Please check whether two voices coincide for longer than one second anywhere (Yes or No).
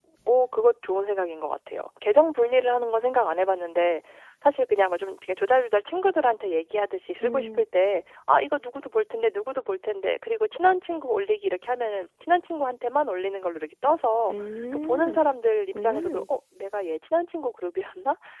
No